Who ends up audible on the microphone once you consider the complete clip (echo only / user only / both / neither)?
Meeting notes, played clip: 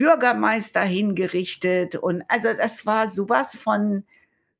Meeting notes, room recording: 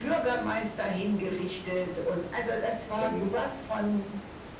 both